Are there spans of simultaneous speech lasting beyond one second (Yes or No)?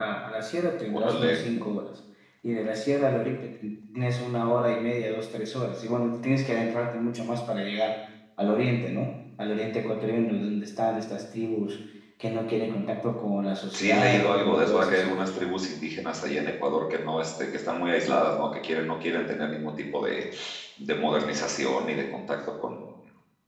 Yes